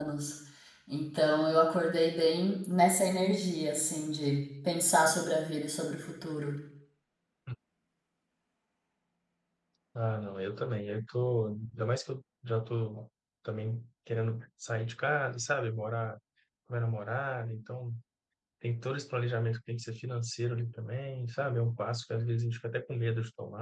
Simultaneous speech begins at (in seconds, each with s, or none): none